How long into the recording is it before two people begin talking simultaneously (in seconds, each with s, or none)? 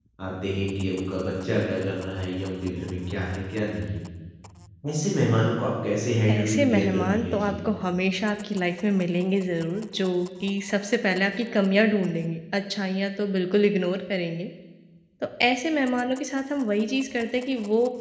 6.3 s